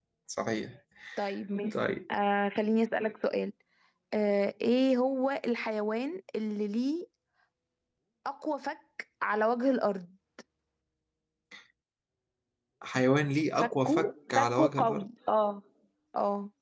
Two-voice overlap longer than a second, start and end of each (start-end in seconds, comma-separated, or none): 13.6-15.1